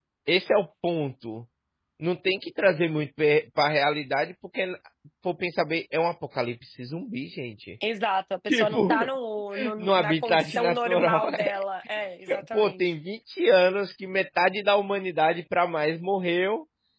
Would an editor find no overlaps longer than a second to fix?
No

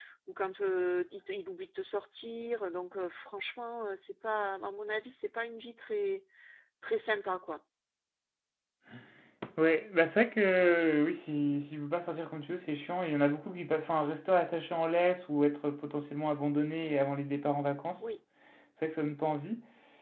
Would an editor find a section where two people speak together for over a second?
No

